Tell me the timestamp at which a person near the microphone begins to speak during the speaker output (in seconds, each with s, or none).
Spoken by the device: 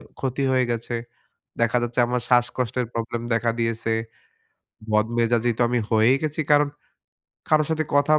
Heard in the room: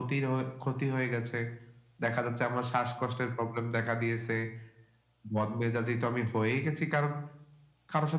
none